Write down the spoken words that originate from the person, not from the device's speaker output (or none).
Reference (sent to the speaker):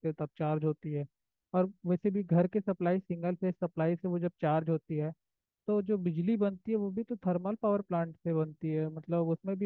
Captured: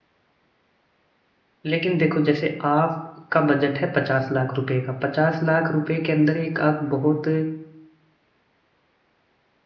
लेकिन देखो जैसे आपका बजट है पचास लाख रुपए का पचास लाख रुपए के अंदर एक आप बहुत